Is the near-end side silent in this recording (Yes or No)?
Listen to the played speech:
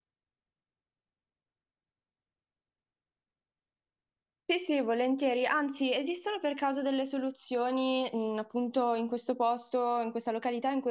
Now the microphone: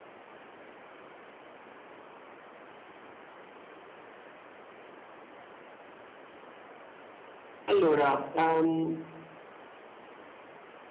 No